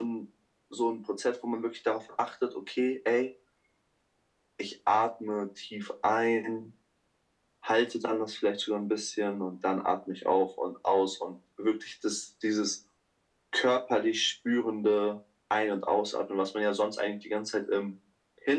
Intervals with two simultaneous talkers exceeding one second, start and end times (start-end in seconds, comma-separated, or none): none